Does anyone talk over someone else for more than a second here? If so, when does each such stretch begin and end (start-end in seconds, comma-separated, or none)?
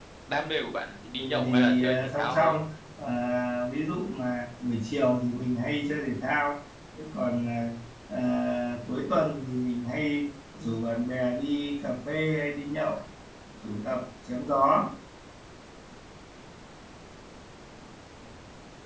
1.2-2.5